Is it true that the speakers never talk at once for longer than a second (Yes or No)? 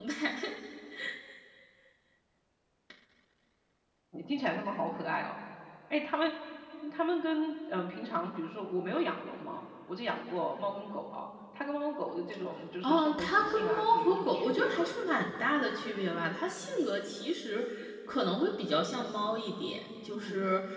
No